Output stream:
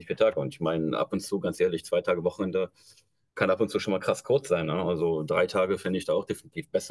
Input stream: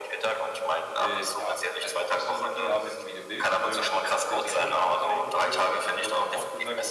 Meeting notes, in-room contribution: present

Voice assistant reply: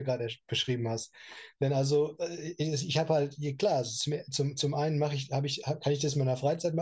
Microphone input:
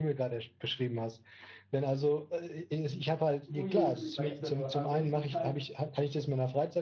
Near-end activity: present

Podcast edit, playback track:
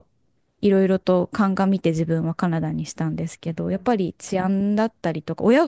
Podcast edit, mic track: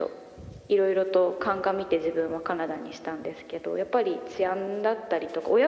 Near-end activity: none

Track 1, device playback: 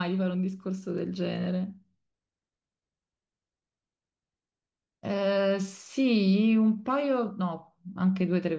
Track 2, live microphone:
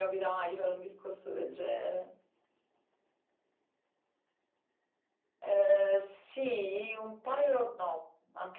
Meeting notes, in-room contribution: none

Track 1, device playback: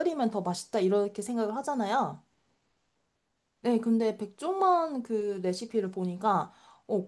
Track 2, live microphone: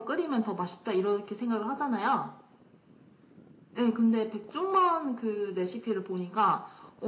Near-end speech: none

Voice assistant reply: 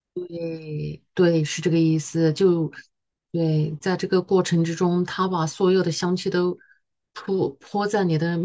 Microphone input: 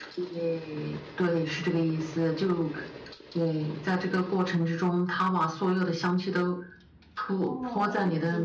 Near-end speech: present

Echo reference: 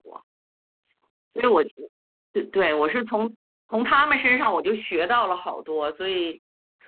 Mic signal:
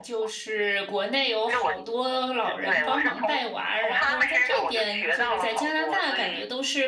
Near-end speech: present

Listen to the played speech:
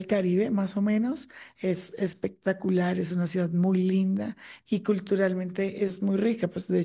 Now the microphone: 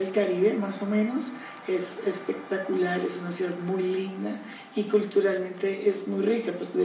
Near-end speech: none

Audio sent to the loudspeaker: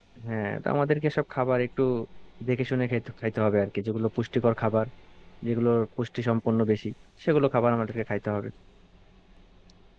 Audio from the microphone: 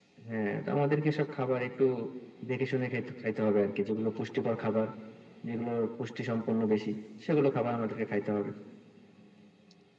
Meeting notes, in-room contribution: none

